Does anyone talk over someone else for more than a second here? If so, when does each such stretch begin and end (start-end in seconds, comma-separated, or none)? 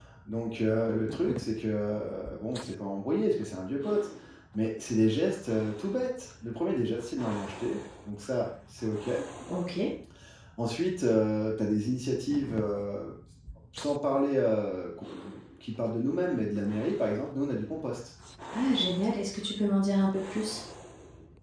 none